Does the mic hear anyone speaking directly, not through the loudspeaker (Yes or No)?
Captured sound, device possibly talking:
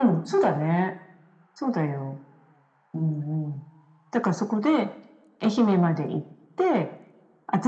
No